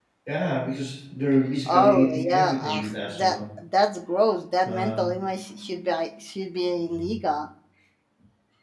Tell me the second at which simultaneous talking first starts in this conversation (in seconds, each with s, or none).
1.7 s